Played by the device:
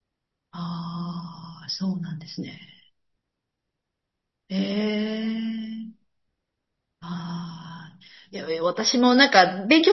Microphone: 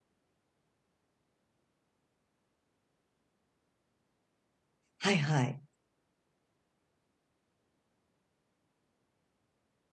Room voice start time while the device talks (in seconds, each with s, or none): 5.0 s